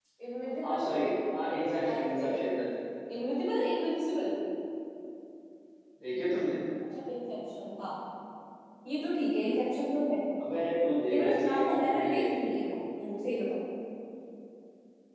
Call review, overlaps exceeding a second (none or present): present